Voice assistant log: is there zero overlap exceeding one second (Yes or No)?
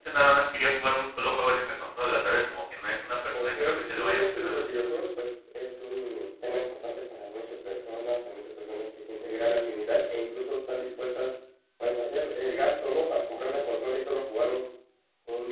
No